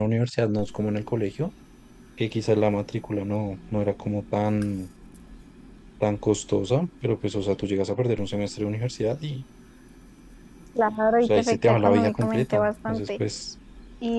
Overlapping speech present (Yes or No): Yes